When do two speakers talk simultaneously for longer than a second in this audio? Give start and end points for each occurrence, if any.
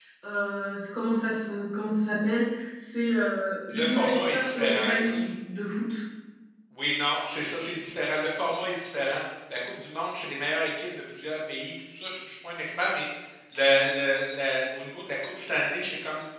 3.7-5.3

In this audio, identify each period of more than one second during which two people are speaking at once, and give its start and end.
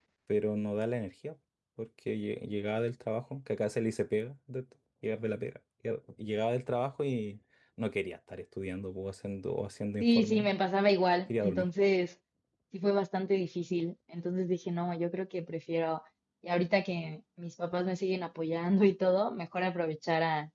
none

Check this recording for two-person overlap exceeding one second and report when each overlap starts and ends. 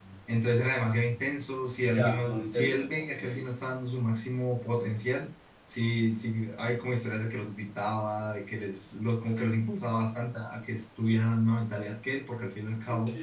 1.8-3.2

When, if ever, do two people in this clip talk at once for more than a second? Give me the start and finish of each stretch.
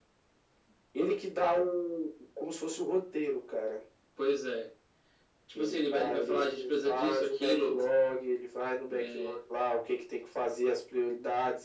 5.5-7.9

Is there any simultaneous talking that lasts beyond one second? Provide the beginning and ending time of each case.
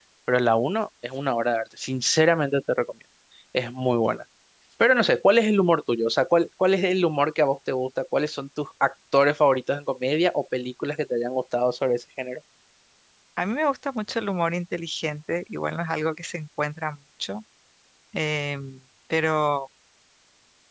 none

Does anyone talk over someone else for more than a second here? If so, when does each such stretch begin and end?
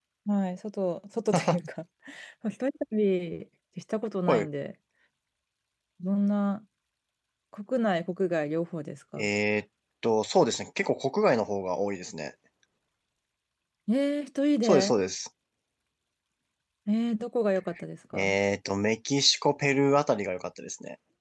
none

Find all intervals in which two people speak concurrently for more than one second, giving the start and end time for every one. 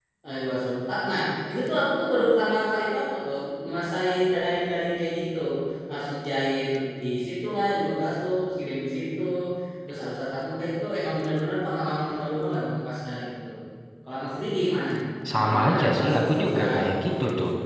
15.4-16.6

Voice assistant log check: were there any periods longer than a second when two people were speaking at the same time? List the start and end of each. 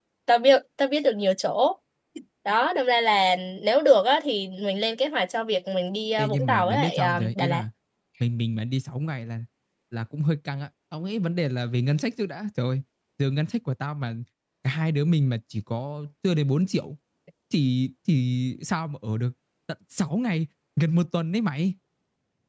6.2-7.6

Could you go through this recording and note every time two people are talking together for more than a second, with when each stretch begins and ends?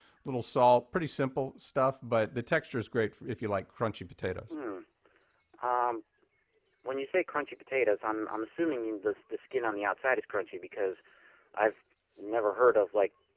none

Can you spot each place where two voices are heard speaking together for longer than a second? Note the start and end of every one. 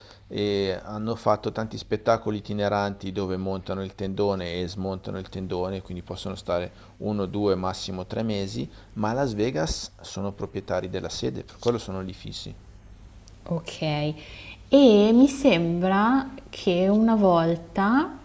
none

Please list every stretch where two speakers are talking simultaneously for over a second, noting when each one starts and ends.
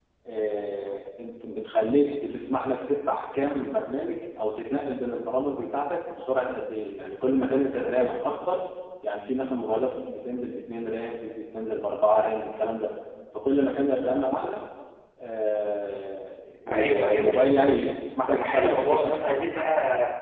16.7-17.9, 18.3-19.6

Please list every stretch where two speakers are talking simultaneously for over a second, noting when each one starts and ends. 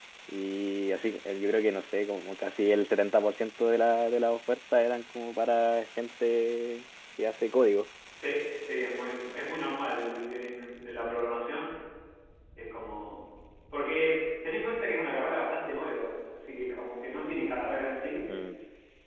none

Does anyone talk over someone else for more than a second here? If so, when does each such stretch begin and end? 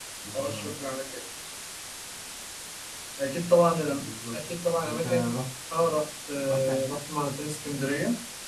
none

